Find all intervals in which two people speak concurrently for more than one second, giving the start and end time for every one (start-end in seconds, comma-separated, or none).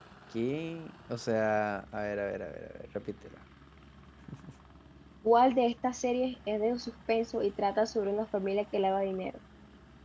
none